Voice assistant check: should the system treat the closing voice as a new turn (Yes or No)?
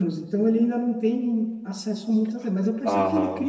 No